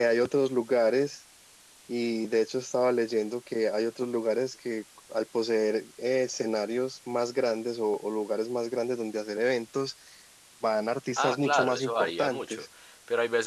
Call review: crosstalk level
present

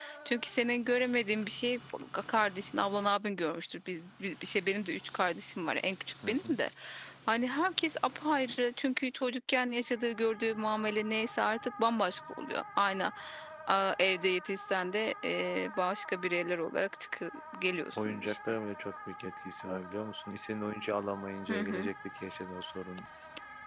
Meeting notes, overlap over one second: none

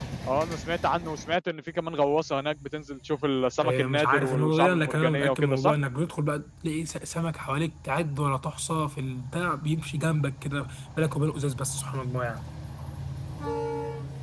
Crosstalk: present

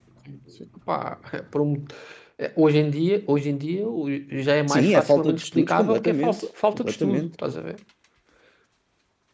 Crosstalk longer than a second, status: present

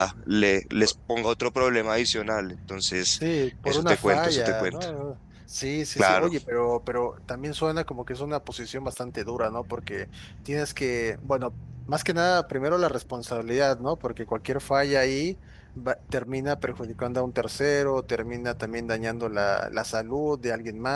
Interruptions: present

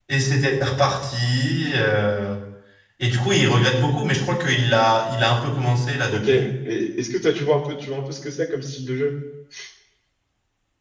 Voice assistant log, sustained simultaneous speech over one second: none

